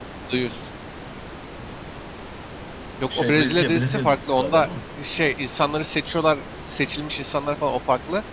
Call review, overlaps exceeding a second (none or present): present